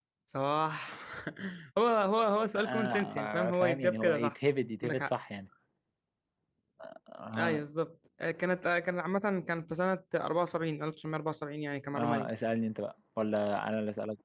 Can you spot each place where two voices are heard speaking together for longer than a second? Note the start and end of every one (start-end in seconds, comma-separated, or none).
2.6-4.3